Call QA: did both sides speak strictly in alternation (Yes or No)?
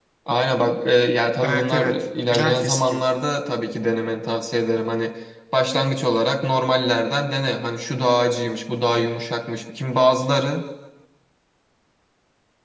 No